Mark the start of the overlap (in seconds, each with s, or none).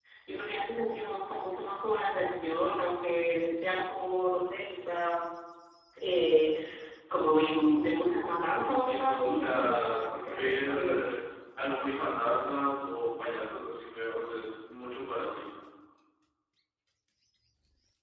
8.6 s